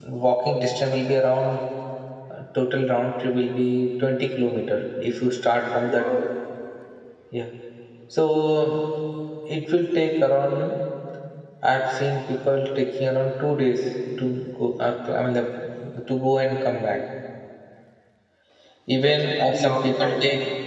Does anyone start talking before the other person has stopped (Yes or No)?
Yes